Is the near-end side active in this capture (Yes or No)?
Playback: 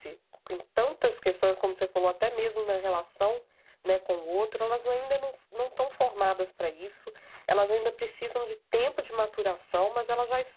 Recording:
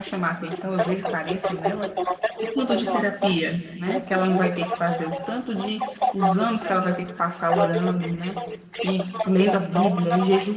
Yes